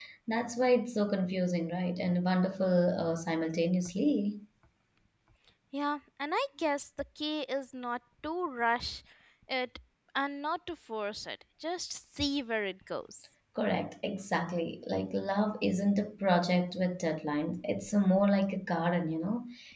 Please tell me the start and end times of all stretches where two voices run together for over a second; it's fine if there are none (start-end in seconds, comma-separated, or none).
none